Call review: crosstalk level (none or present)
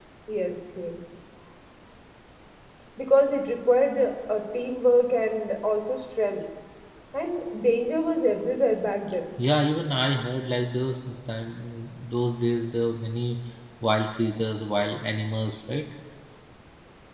none